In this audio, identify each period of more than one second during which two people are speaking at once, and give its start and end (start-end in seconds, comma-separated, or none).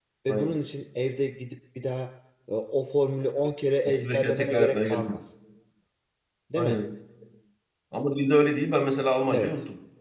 3.9-5.2